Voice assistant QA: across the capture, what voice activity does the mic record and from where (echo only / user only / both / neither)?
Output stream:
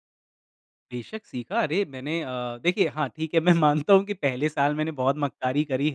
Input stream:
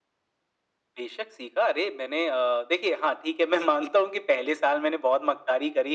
echo only